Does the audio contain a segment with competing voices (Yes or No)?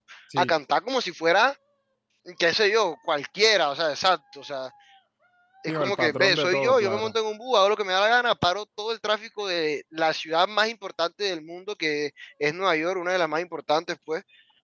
Yes